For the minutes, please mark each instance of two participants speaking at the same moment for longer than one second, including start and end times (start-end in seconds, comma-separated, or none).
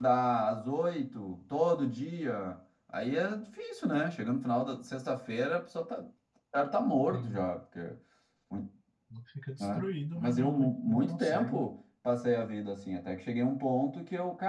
9.6-11.6